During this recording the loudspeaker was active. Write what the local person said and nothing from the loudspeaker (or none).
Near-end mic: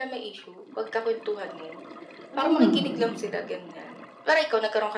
hmm,